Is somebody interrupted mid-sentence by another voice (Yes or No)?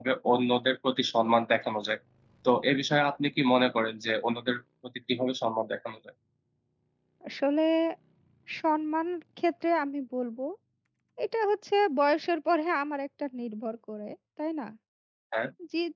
No